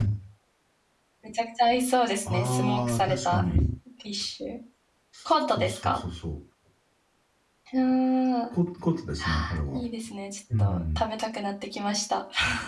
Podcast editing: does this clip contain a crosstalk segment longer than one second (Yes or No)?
Yes